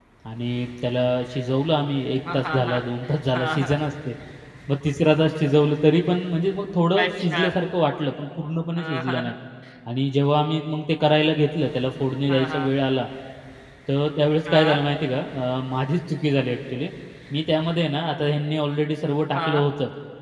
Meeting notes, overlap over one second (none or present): none